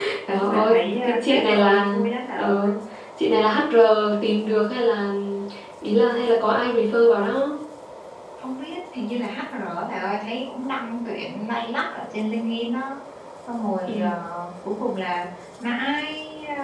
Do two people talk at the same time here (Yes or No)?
Yes